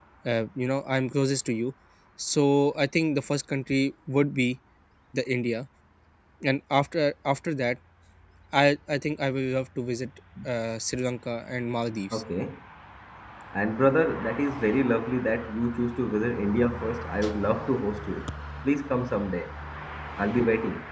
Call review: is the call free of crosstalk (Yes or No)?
Yes